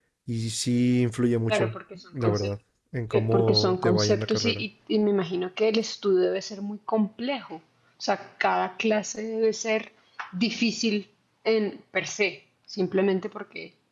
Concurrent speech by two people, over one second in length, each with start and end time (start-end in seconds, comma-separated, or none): 3.3-4.5